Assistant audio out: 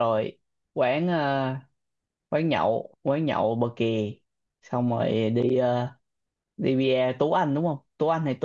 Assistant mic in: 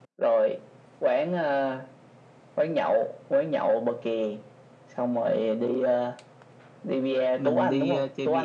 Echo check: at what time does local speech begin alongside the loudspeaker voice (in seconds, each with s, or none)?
7.3 s